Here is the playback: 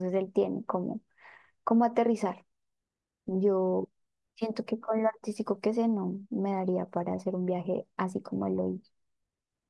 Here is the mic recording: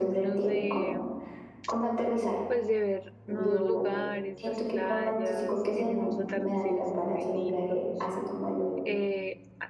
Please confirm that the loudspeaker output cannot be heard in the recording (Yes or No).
No